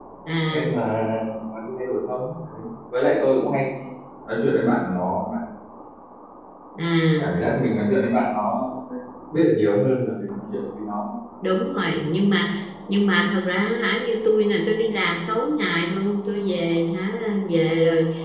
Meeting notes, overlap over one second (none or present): none